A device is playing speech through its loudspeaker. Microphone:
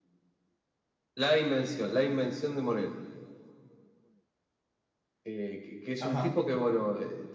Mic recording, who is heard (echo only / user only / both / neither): both